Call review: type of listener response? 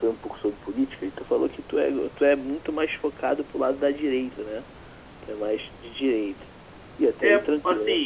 taking over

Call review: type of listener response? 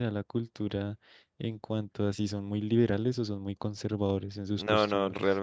taking over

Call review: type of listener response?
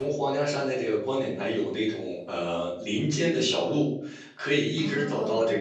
listening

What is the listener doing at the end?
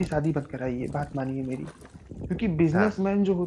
listening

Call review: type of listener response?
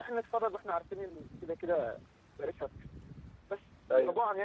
listening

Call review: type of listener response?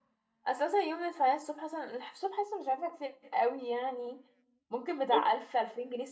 listening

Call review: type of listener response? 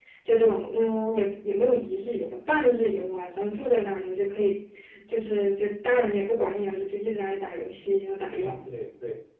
taking over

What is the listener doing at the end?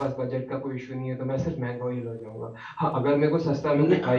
listening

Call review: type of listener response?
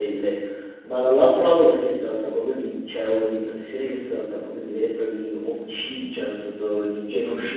listening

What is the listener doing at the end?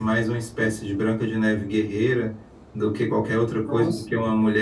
listening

